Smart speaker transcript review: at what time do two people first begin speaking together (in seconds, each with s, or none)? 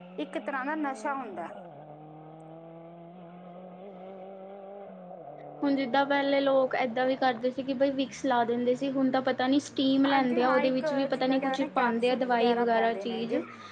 10.0 s